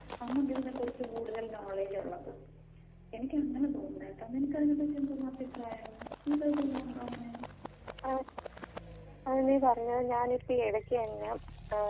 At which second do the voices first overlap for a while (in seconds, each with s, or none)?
none